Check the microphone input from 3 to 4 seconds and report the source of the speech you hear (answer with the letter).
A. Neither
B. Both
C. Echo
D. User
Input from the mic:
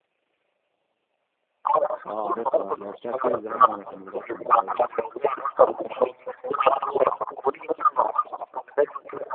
B